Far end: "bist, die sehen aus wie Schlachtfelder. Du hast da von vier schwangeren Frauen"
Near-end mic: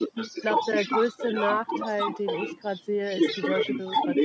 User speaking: Yes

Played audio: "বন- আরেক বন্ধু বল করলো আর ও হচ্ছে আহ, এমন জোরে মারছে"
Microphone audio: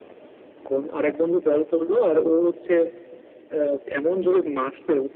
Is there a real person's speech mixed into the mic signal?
No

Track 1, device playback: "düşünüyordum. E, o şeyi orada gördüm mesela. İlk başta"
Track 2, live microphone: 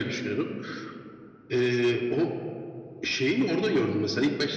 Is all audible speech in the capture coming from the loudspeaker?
Yes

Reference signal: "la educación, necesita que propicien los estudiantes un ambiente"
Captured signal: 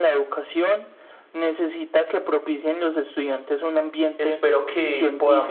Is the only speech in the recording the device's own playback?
No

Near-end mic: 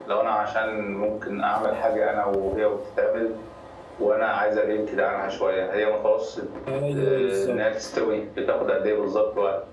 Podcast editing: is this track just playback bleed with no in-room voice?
No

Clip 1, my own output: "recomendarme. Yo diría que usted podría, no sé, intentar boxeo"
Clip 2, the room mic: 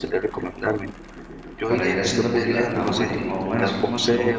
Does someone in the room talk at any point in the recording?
Yes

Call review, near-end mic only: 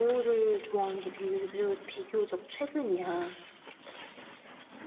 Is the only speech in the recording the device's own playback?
Yes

